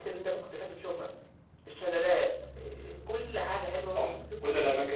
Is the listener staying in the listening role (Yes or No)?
No